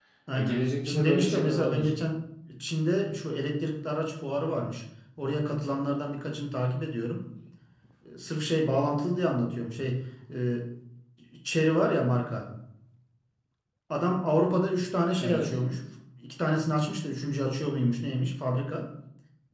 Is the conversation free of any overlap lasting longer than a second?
No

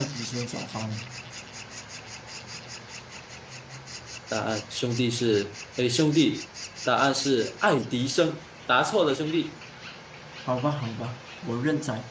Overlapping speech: No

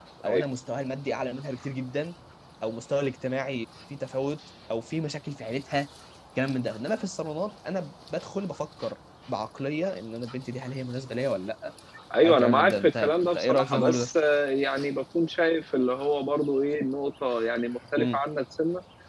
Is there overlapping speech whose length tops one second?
Yes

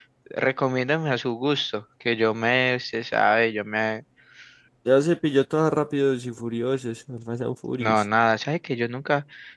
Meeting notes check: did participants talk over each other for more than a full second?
No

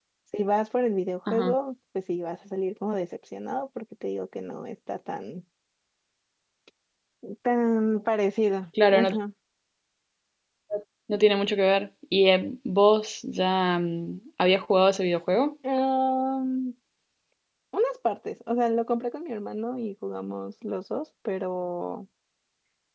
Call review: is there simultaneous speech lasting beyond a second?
No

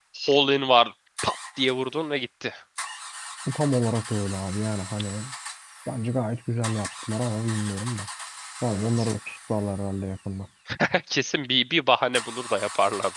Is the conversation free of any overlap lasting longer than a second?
Yes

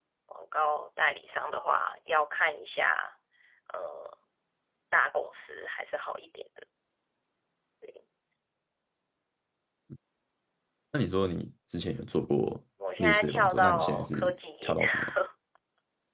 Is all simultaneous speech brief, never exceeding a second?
No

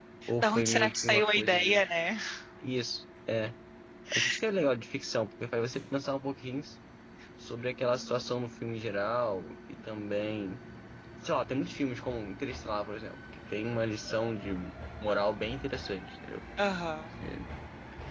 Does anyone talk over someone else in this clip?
Yes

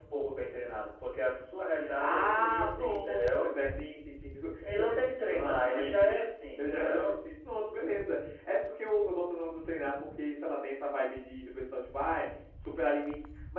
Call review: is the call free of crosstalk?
No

